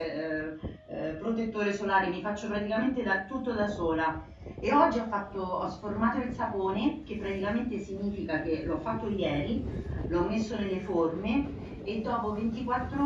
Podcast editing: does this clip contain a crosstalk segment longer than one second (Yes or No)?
No